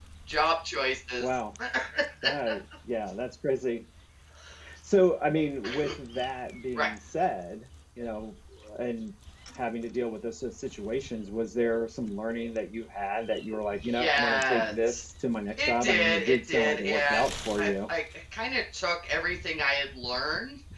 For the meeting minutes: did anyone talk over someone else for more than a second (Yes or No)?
Yes